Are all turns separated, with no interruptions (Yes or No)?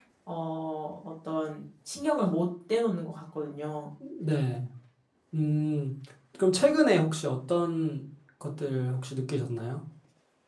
Yes